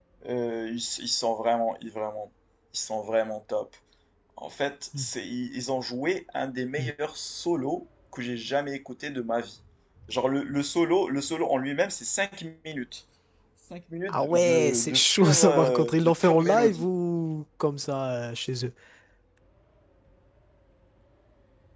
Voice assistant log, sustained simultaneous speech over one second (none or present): present